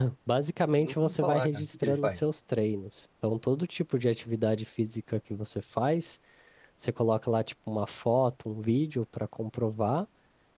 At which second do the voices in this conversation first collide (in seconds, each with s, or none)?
0.8 s